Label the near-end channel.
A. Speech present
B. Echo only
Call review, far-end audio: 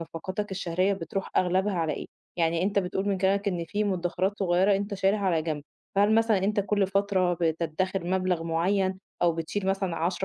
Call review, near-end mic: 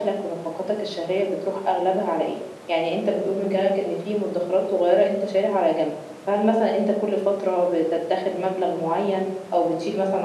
B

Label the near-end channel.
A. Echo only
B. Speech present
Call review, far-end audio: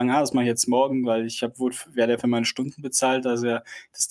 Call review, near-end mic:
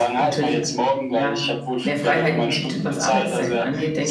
B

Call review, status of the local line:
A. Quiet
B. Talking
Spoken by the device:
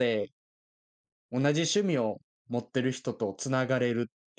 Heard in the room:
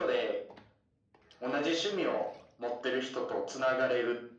A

